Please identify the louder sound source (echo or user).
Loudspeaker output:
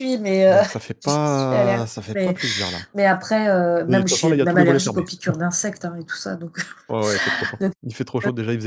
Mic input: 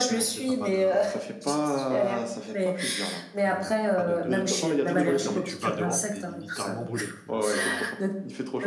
echo